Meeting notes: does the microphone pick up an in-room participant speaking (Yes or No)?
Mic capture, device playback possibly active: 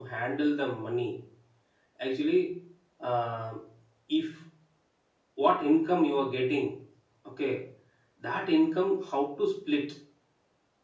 Yes